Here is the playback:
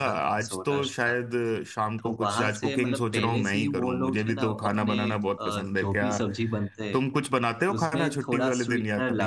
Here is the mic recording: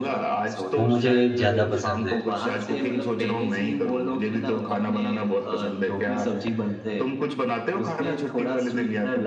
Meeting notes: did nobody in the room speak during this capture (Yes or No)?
No